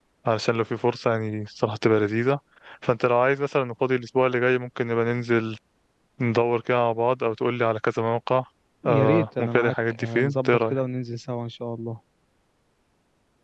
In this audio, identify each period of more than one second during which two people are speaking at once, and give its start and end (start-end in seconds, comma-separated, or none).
8.8-10.8